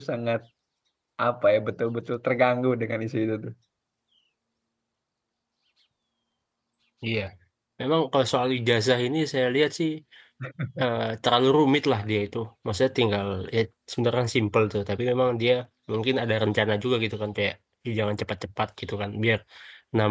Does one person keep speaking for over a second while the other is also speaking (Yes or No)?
No